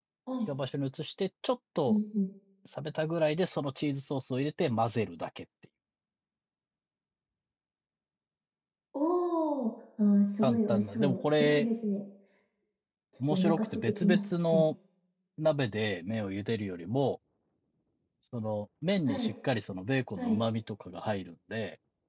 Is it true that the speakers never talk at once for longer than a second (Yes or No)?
No